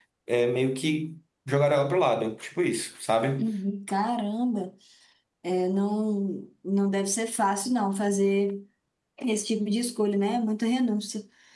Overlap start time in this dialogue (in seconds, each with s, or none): none